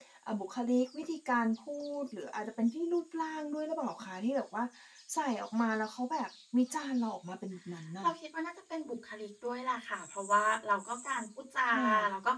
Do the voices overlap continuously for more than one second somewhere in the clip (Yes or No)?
No